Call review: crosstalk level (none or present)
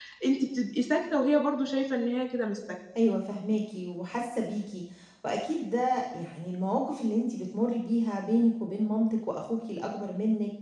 none